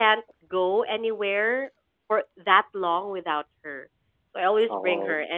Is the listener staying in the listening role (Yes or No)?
Yes